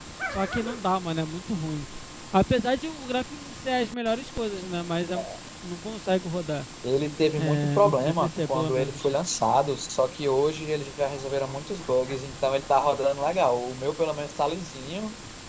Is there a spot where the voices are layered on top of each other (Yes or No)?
Yes